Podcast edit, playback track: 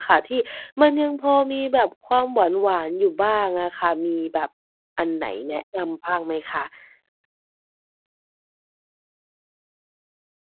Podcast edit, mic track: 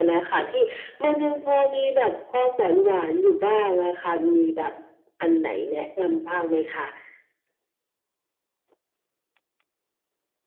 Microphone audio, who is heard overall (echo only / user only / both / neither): echo only